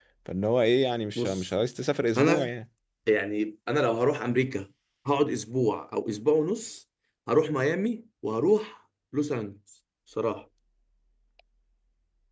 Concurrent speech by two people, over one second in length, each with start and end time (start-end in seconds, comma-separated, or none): none